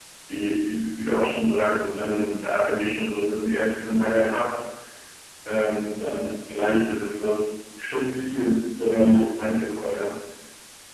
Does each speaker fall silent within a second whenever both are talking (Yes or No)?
No